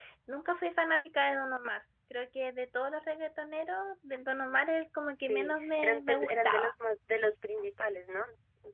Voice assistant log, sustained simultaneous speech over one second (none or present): present